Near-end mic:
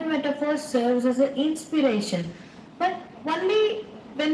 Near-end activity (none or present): none